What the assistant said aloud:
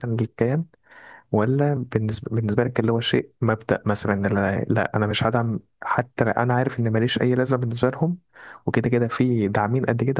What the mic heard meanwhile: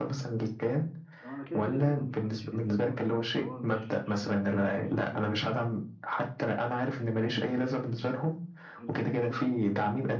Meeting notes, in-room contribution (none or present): present